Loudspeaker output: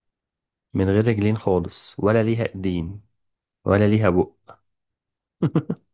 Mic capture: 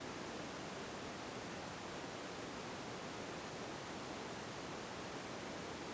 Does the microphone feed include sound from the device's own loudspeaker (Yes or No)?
No